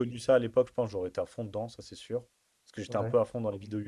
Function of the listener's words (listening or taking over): listening